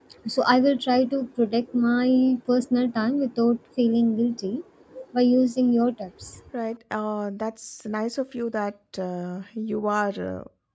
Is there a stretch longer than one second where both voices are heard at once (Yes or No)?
No